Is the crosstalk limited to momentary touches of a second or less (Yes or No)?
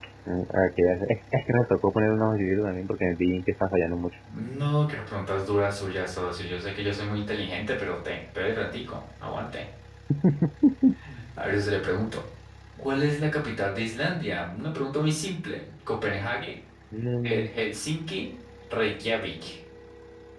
Yes